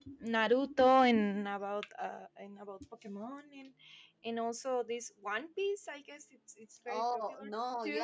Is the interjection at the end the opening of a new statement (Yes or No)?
Yes